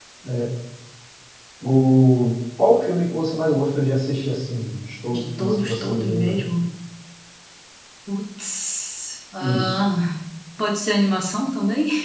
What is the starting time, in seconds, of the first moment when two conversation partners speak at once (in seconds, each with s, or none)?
5.1 s